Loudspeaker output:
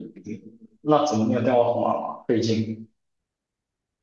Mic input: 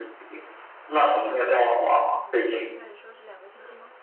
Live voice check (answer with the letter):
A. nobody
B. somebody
B